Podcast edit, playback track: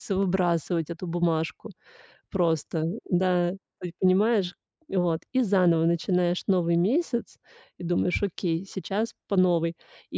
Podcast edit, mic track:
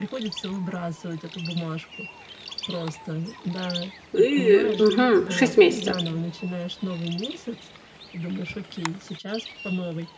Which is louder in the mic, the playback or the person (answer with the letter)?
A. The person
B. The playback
A